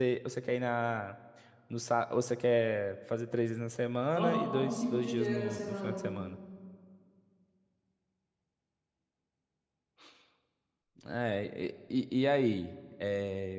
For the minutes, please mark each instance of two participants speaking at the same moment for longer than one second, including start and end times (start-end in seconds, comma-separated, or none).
4.1-6.1